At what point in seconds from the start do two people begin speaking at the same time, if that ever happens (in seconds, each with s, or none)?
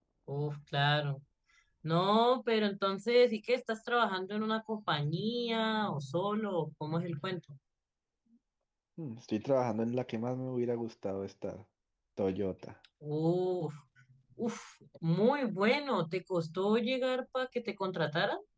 none